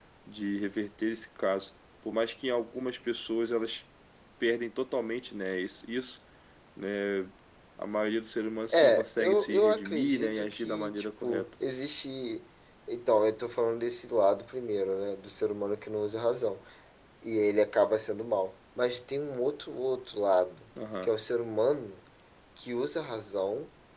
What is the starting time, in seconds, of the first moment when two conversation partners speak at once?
8.7 s

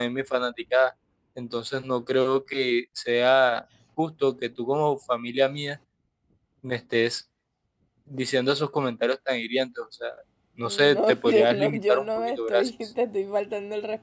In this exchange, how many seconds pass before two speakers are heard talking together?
10.6 s

